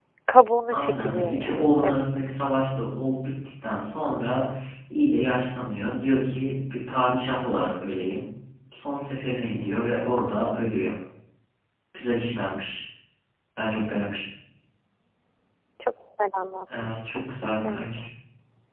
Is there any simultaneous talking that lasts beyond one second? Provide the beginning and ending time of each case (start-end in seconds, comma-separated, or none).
0.7-2.0